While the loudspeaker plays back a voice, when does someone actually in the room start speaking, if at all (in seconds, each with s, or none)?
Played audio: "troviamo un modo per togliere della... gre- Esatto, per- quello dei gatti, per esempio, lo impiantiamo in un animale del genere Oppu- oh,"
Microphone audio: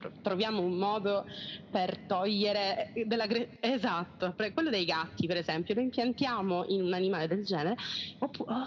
none